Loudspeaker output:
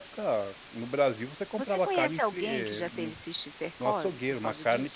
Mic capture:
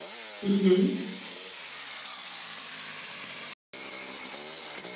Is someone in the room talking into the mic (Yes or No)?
Yes